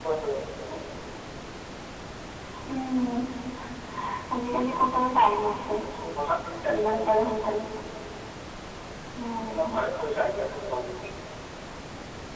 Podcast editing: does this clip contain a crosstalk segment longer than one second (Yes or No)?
No